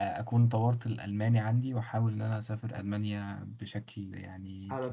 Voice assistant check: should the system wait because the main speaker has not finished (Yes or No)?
No